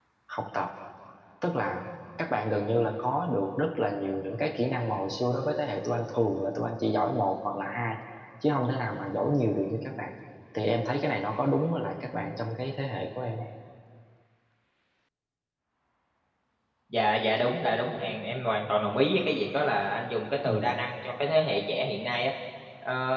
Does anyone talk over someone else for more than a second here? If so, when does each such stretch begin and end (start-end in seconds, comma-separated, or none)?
none